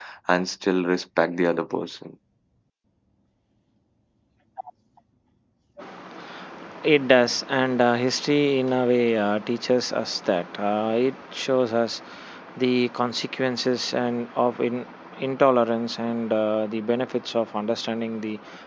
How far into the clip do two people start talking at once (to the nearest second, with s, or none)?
none